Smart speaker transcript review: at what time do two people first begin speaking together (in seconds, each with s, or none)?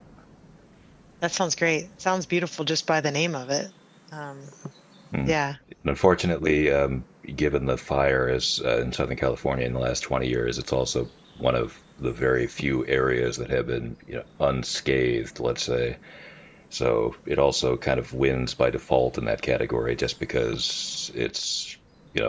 none